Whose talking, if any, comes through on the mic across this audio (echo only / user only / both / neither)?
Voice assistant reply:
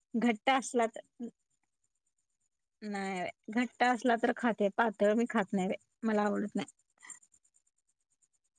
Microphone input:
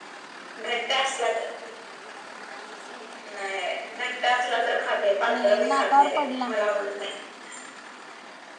both